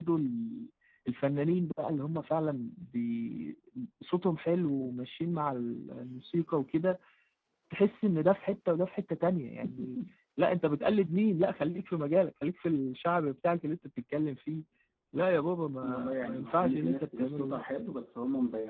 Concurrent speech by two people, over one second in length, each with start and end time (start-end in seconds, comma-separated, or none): 15.8-17.6